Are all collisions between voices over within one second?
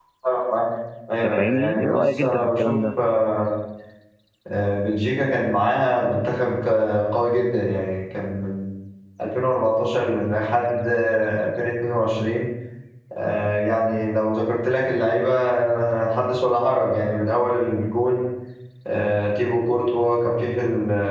No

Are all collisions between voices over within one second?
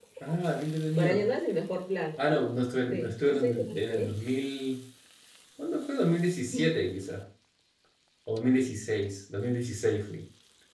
No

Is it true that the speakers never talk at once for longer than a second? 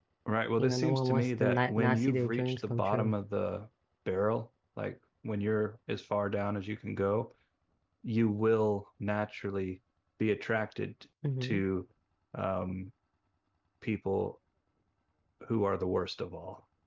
No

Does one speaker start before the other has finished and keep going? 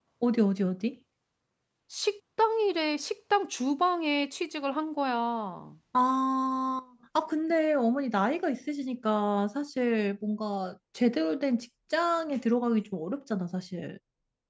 No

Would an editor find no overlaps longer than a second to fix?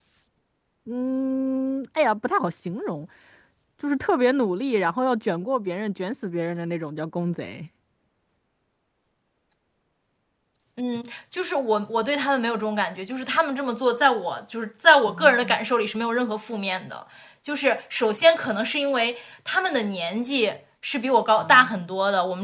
Yes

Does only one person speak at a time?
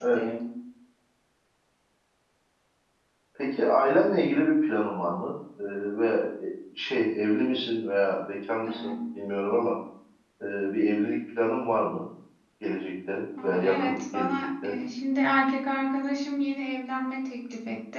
No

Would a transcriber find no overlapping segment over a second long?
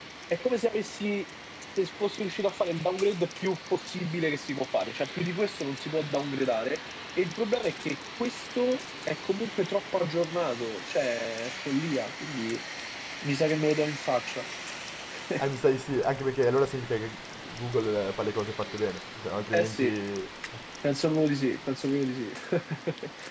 Yes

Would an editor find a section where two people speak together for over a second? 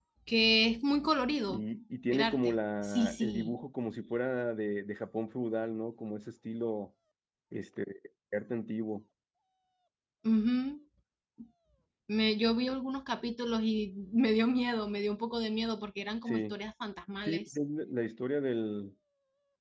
Yes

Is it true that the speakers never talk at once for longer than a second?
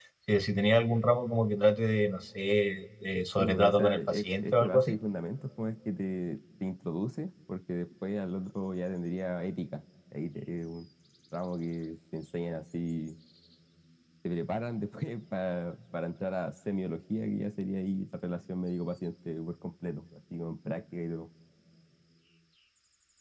No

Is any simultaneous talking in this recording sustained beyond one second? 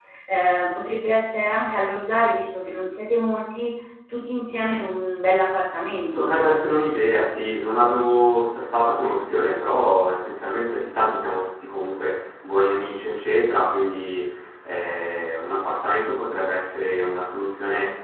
No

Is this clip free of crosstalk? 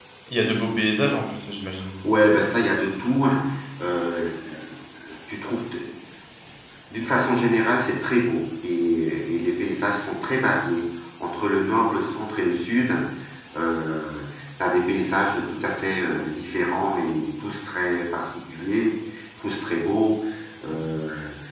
Yes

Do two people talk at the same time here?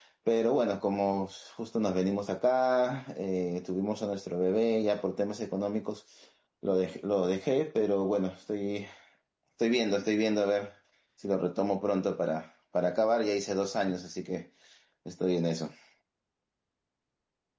No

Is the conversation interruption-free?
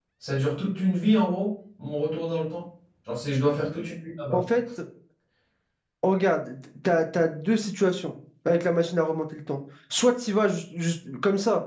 Yes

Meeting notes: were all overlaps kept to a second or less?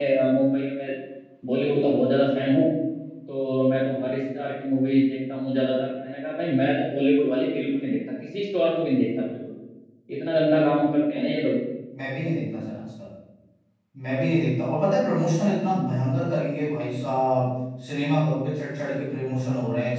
Yes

